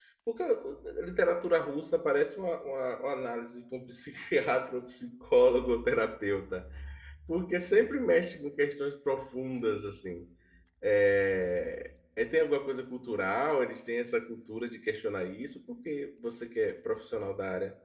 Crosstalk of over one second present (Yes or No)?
No